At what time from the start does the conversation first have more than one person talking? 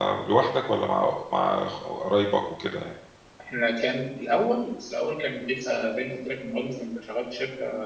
none

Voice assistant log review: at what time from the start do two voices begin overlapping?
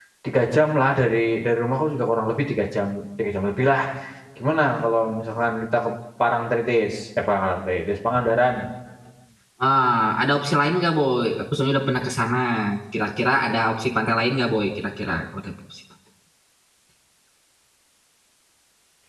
none

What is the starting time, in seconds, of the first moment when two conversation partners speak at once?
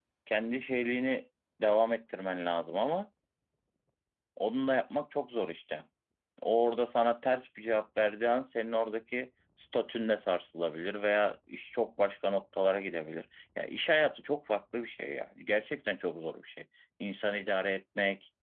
none

